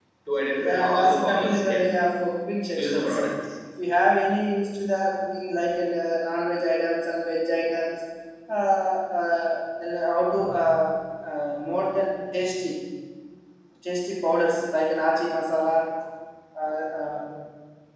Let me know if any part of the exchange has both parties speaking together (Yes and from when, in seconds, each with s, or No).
Yes, from 0.6 s